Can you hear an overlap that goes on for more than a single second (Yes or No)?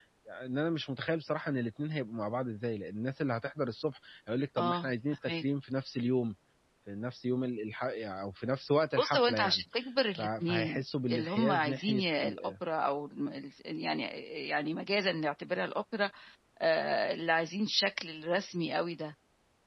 Yes